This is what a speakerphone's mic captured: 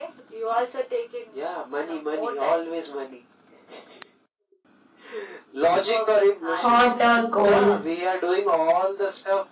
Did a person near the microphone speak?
Yes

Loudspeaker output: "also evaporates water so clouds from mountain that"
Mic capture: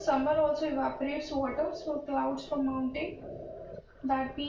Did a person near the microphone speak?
No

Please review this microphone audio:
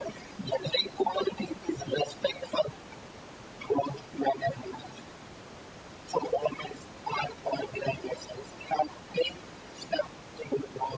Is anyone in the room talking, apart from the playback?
No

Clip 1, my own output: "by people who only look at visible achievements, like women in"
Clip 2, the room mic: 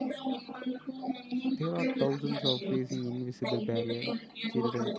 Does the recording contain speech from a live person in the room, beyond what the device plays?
Yes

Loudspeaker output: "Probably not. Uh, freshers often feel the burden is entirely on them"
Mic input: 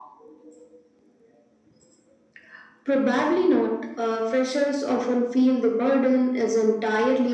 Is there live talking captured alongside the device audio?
No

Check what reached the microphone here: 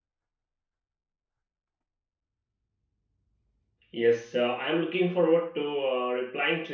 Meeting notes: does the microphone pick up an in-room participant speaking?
Yes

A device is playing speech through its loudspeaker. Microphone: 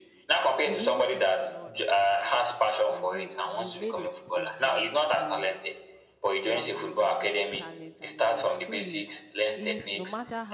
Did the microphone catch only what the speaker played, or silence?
No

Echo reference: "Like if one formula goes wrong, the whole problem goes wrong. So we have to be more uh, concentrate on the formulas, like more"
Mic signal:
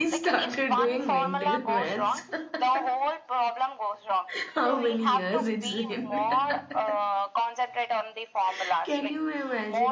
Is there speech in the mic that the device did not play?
Yes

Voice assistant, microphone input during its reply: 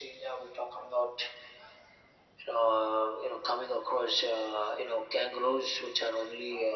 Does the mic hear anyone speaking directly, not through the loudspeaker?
No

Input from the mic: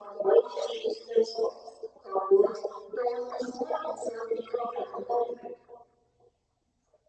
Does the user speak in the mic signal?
No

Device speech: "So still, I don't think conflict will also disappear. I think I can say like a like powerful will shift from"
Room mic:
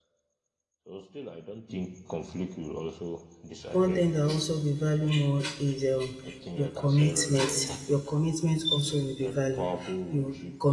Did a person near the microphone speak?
Yes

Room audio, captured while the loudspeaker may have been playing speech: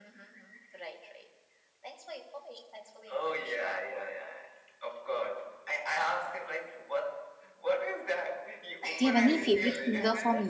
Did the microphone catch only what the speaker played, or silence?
No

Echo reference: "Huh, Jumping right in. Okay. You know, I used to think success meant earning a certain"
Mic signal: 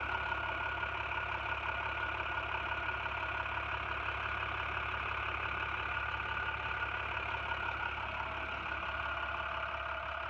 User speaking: No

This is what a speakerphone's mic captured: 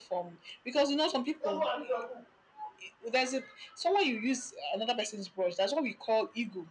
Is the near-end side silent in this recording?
Yes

